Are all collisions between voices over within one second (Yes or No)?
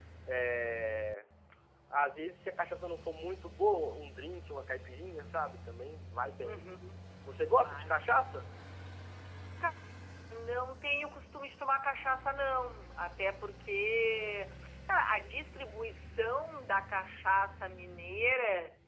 Yes